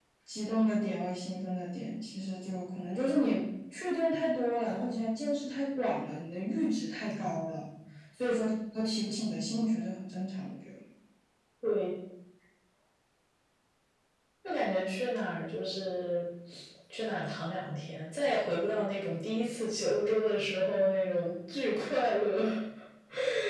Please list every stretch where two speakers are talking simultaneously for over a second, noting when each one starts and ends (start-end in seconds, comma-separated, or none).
none